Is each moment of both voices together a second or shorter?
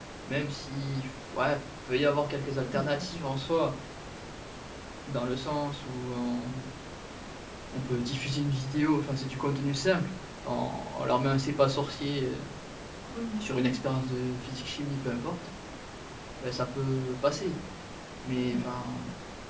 Yes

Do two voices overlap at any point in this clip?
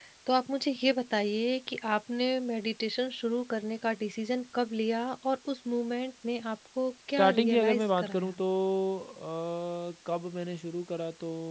Yes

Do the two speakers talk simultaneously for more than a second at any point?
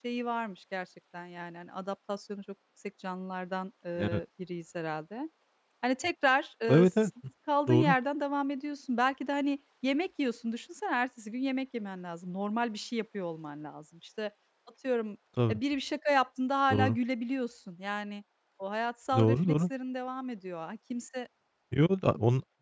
No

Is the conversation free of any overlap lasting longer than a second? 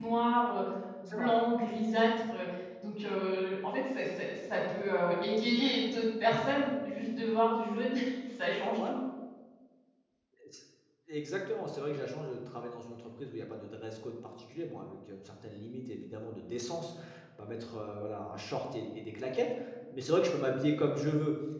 Yes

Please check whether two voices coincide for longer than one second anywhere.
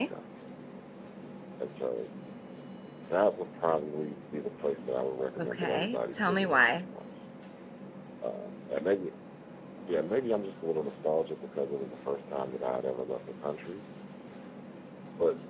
Yes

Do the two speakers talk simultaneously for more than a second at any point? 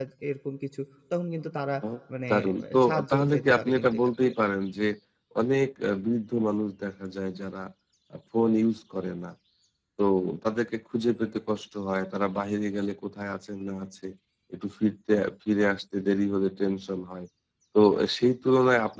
Yes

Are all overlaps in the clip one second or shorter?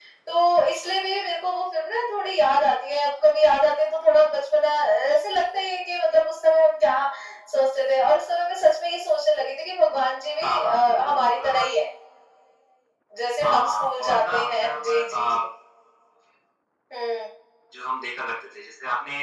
No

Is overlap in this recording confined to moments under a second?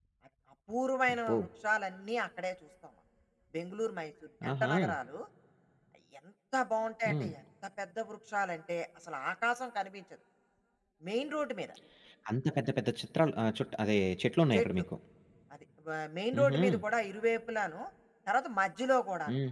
Yes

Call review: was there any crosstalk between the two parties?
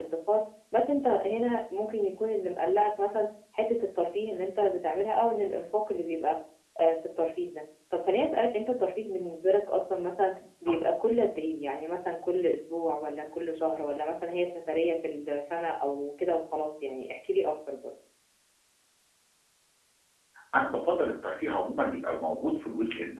No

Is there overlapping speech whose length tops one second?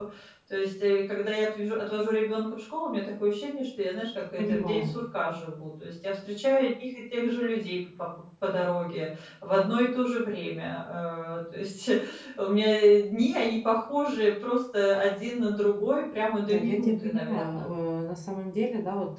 Yes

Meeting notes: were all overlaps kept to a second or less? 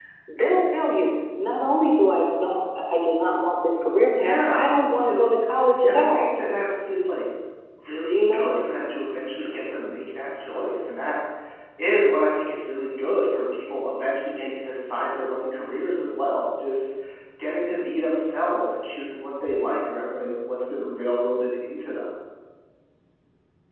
No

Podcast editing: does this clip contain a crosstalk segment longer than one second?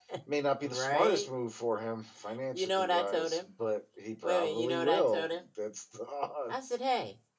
Yes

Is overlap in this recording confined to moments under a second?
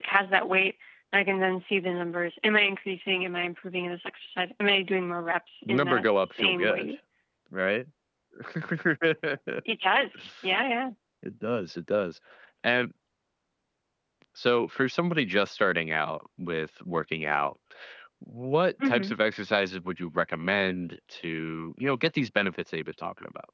No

